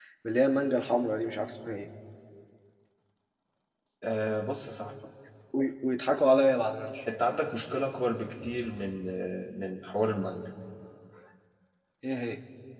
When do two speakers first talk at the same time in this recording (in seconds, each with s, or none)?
none